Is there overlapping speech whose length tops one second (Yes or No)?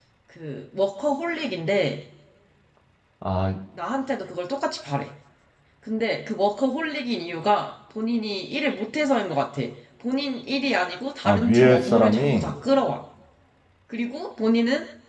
Yes